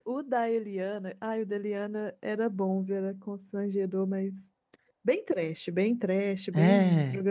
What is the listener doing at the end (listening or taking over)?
listening